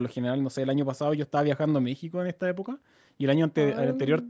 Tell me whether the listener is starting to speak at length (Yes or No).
No